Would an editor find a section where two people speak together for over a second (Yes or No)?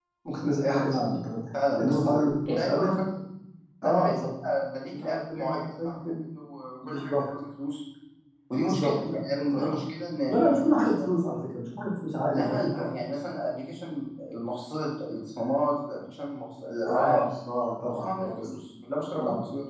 Yes